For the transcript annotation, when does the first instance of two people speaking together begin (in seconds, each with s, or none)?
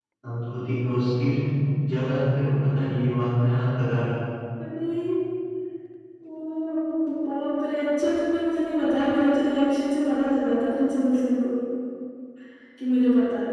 none